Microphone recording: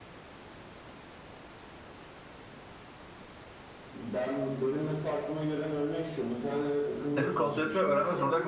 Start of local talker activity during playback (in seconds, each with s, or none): 7.1 s